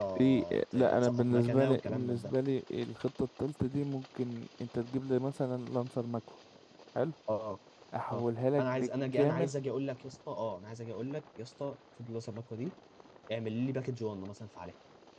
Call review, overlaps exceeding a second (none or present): present